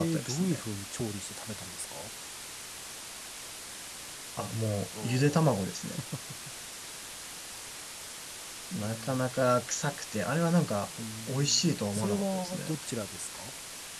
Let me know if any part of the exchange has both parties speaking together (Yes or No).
Yes